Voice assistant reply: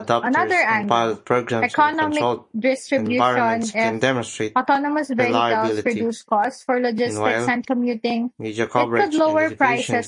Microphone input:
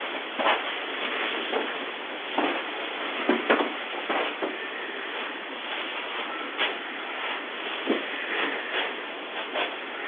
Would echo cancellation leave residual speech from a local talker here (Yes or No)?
No